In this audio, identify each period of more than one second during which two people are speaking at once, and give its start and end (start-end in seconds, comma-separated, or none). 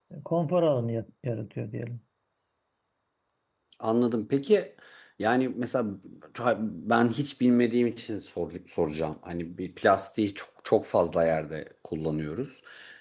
none